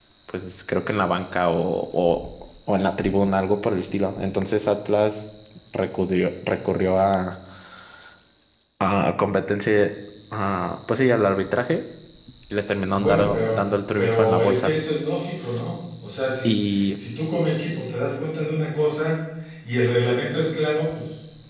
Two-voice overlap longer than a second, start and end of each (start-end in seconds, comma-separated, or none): 12.9-14.7